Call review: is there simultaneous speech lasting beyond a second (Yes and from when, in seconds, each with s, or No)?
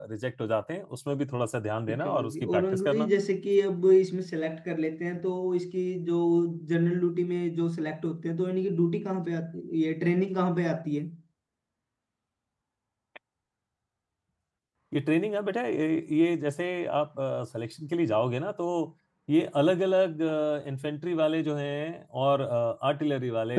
Yes, from 1.9 s